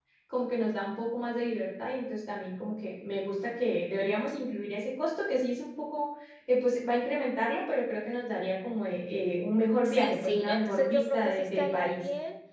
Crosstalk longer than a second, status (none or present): present